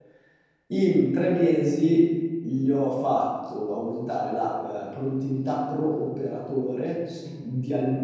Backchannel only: Yes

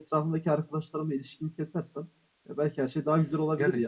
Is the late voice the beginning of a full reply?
Yes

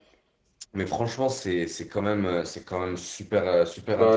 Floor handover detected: No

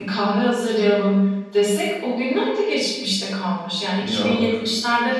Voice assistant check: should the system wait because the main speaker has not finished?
Yes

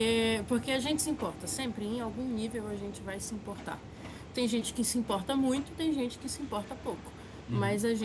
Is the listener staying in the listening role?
Yes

